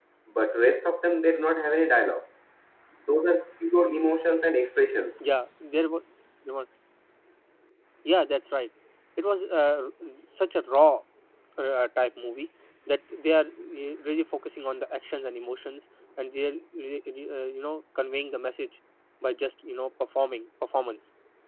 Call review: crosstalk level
none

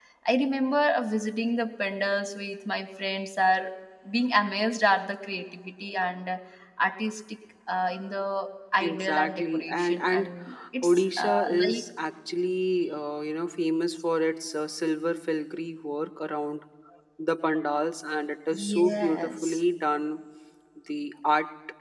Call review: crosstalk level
present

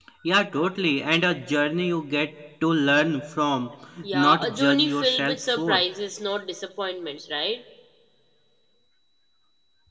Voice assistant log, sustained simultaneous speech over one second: present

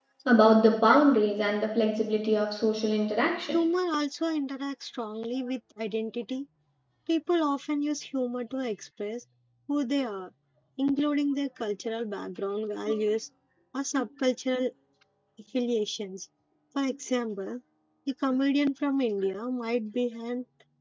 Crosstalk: none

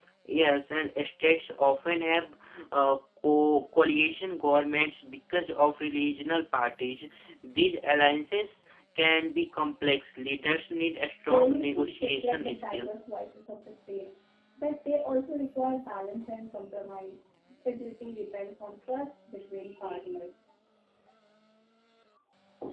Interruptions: present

